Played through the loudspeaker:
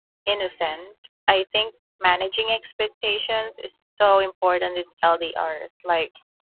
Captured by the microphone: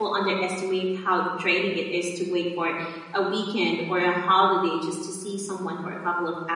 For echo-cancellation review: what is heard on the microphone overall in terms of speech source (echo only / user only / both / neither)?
user only